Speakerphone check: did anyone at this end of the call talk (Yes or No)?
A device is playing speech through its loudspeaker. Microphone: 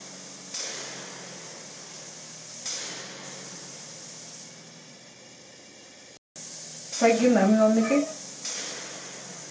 Yes